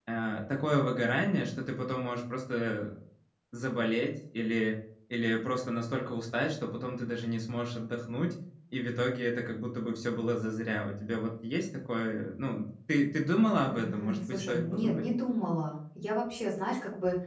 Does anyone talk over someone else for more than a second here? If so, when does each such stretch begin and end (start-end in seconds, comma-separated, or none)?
13.7-15.1